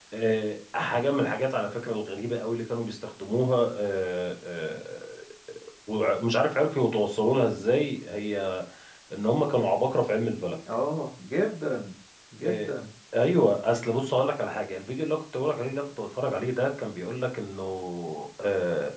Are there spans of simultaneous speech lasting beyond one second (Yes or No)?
No